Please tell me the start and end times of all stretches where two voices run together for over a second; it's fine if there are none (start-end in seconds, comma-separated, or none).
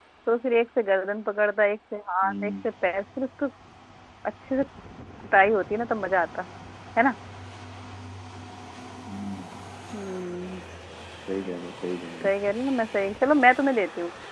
none